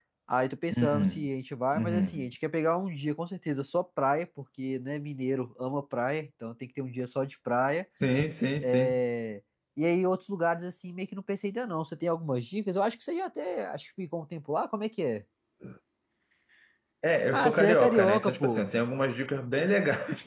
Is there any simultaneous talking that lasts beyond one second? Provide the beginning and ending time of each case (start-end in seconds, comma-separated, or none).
17.3-18.7